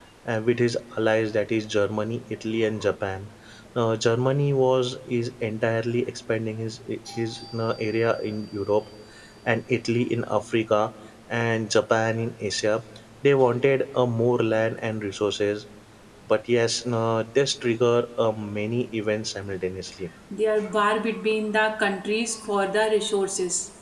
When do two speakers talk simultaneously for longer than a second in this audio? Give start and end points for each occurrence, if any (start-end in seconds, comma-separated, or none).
none